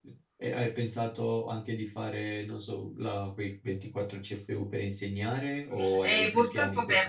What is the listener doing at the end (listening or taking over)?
taking over